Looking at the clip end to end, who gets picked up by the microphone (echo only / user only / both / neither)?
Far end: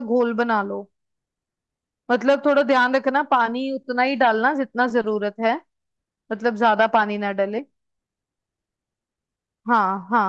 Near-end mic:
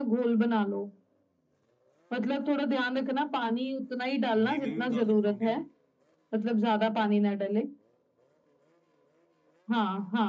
both